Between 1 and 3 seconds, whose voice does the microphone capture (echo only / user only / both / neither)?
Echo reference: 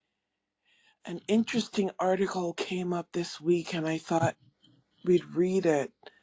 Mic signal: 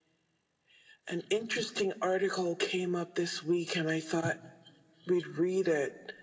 echo only